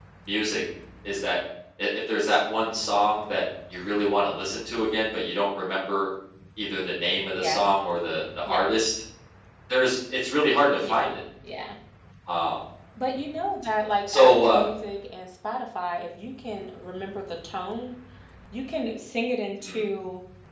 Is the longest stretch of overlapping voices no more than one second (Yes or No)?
Yes